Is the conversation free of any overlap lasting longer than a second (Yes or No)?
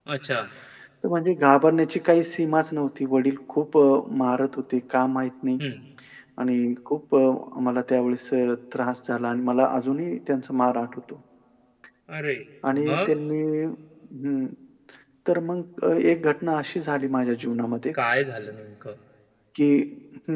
Yes